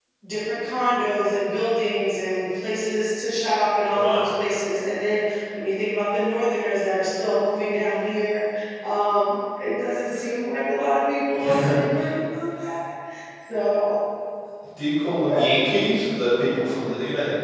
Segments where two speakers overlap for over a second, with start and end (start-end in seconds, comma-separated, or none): none